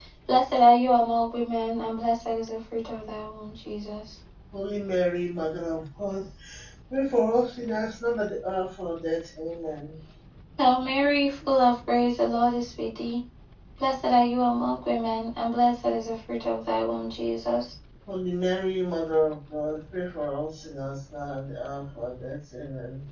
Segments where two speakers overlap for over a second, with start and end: none

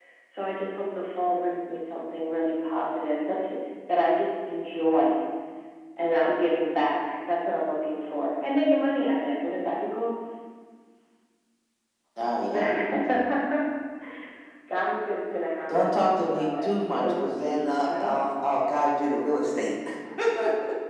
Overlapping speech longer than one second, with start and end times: 15.7-18.2

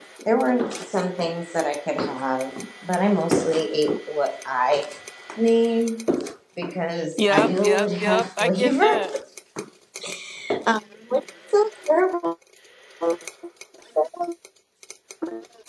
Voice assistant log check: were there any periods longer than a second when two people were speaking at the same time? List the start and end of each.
7.2-9.0

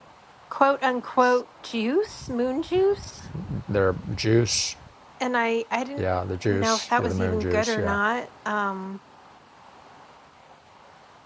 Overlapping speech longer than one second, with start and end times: 6.5-7.9

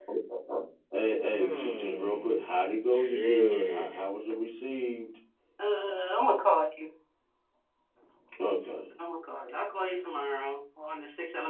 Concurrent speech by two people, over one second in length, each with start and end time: 1.3-4.1

